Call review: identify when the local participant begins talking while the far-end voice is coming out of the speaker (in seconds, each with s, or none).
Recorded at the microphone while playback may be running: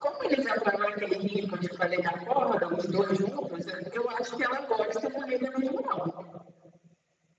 none